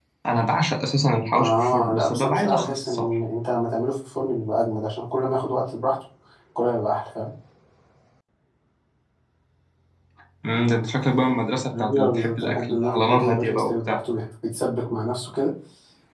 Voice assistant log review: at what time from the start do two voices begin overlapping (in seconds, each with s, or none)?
1.4 s